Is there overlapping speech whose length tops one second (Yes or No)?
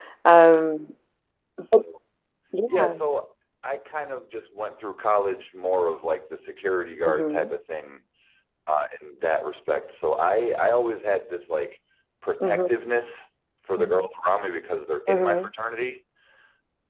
No